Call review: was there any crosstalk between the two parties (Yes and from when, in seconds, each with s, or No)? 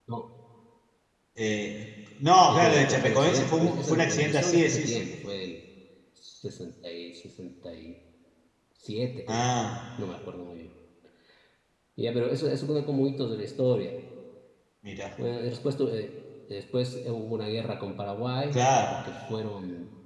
Yes, from 2.5 s